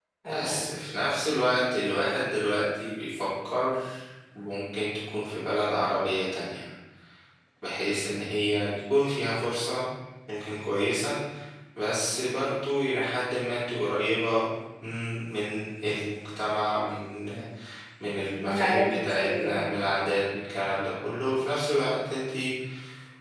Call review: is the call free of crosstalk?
No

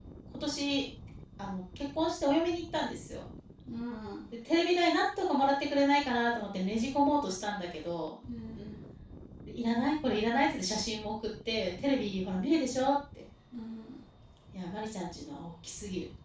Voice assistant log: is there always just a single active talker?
Yes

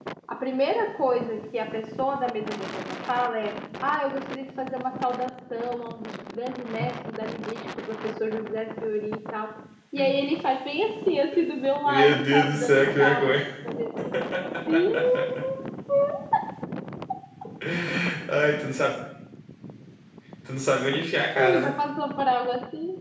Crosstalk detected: Yes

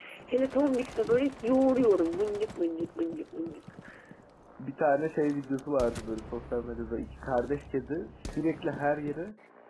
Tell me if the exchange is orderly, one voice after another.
Yes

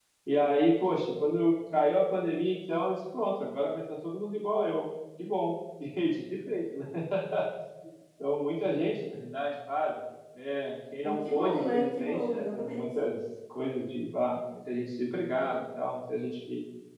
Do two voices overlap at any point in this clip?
Yes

